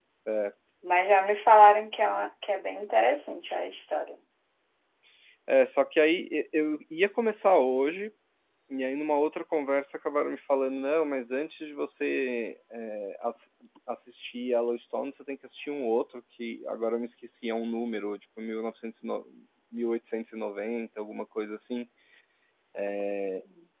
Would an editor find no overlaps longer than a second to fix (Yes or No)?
Yes